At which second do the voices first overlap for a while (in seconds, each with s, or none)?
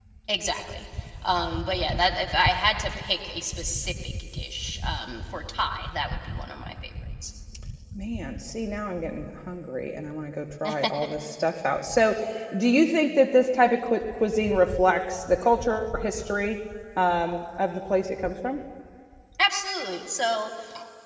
none